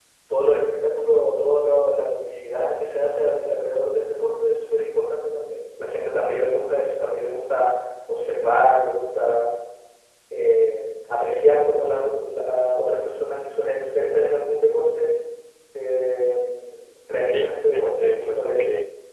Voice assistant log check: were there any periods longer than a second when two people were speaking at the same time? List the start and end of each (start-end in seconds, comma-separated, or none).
17.3-18.6